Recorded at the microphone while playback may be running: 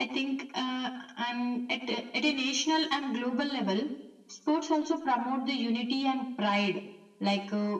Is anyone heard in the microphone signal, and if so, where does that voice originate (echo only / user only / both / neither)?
echo only